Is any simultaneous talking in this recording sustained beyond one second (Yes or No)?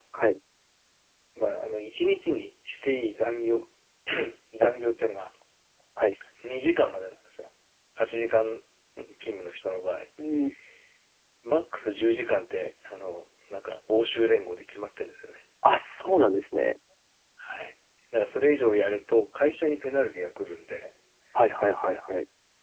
No